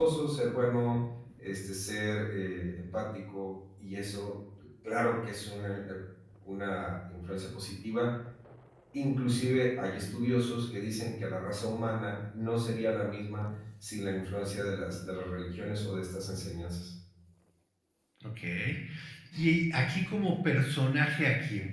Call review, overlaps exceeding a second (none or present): none